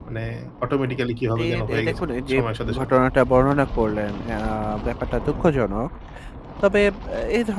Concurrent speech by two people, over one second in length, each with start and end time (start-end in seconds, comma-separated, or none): 1.4-3.0